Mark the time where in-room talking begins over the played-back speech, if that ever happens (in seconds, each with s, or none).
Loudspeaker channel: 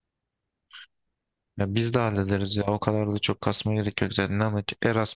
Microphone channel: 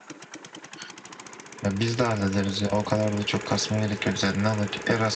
none